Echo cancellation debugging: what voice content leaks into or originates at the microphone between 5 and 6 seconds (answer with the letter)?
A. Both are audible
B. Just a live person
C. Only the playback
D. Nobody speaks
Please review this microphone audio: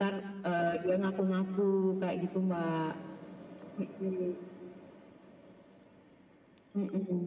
D